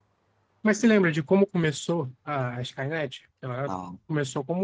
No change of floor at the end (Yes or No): Yes